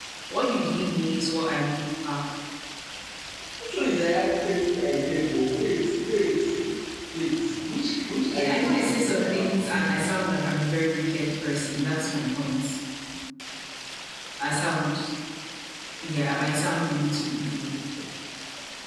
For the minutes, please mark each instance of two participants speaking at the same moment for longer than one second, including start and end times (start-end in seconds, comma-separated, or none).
8.3-9.9